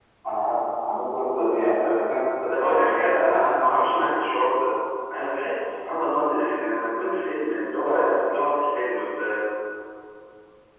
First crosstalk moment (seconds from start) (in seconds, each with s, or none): 2.5 s